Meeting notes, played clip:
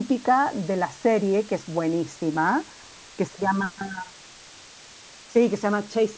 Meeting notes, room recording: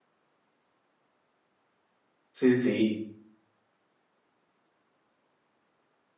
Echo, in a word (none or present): none